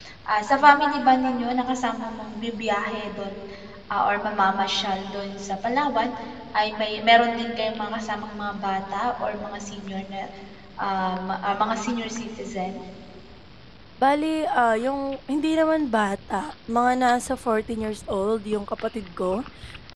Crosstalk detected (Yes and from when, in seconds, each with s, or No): No